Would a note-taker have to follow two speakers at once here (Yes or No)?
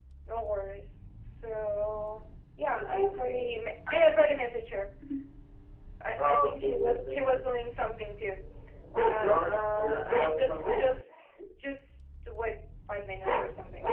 Yes